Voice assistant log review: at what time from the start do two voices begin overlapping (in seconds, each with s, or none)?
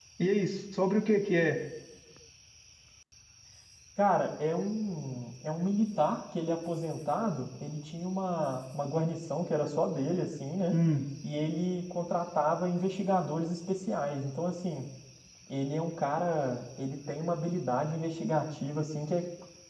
none